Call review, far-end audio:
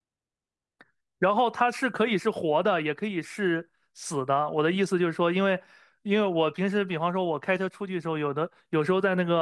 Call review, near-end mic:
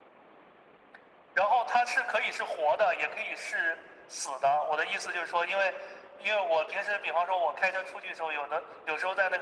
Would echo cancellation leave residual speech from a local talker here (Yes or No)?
No